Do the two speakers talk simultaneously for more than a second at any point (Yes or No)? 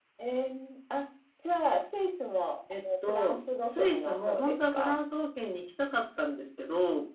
Yes